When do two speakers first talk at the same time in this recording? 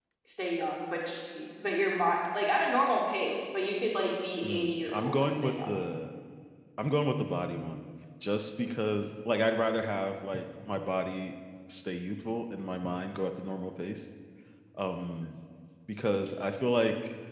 4.4 s

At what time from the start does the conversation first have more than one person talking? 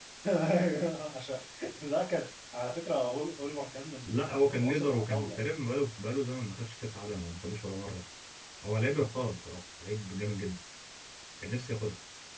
4.1 s

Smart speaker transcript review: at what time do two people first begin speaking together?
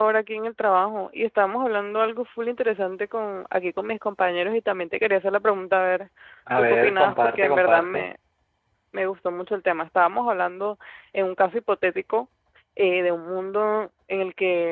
6.6 s

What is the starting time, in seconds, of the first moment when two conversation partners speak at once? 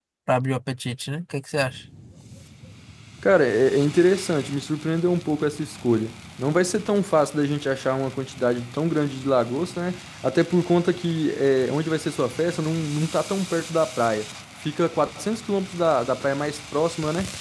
none

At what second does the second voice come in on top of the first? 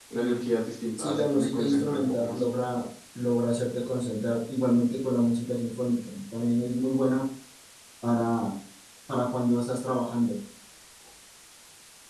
1.0 s

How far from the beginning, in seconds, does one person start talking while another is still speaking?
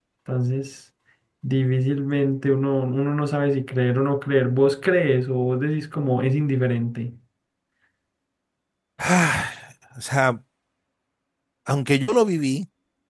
none

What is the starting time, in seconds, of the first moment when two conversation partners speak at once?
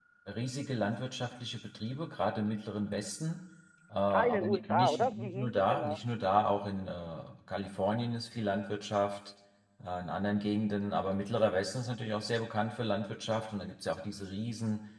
4.1 s

